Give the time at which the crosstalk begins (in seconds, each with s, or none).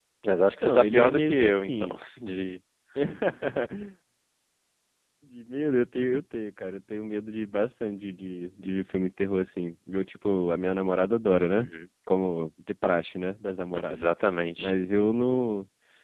0.6 s